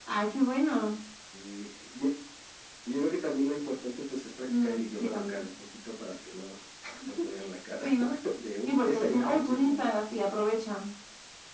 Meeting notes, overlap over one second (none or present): present